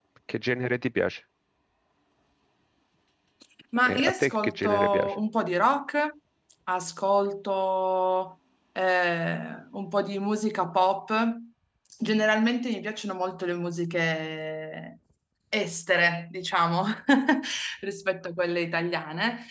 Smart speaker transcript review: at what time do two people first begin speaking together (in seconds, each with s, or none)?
3.9 s